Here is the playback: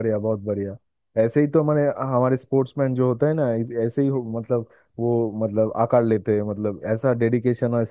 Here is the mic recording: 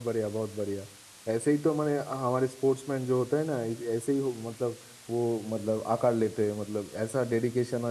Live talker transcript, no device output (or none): none